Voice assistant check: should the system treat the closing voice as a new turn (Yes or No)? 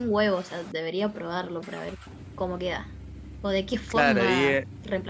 Yes